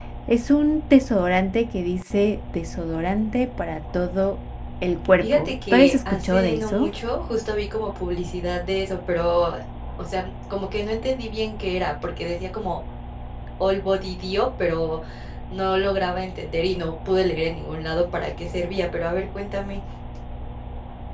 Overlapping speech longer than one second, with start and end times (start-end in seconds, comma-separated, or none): 5.2-6.9